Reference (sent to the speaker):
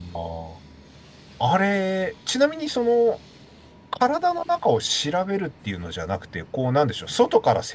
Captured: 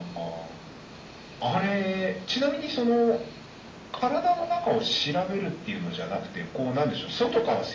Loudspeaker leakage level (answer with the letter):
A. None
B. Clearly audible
B